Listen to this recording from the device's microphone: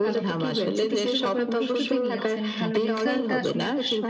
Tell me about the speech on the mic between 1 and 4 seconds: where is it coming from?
both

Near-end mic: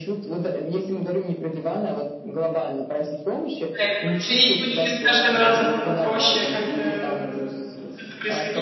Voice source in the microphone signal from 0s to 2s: echo only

